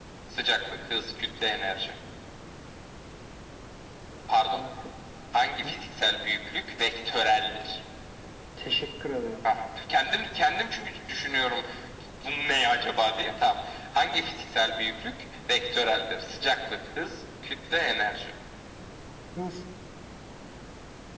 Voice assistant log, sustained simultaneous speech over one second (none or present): none